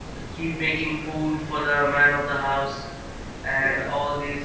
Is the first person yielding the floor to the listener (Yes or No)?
No